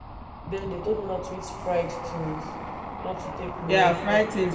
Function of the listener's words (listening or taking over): taking over